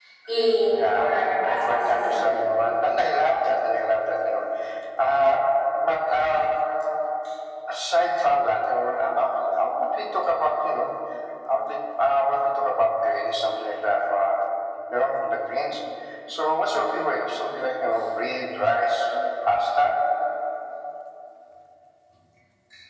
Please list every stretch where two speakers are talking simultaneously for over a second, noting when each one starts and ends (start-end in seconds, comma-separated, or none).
0.7-2.3